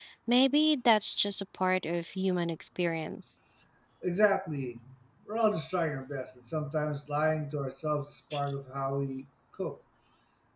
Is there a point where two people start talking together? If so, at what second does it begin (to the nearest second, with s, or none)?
none